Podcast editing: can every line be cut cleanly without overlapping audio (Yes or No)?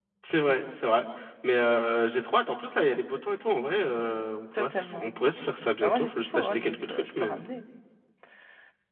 No